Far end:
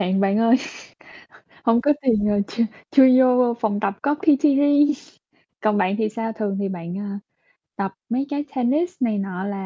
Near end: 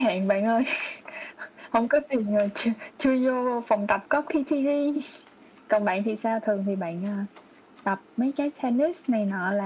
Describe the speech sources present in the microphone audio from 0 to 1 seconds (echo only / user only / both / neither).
echo only